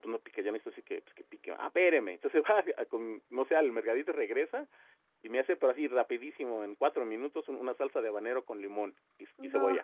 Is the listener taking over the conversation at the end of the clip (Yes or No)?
No